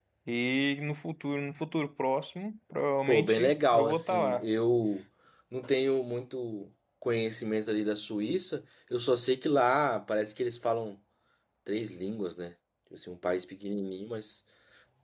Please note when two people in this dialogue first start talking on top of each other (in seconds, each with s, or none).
3.1 s